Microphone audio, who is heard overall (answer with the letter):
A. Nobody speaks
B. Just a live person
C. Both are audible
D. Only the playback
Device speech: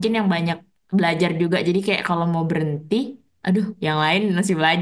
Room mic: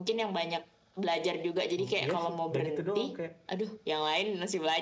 C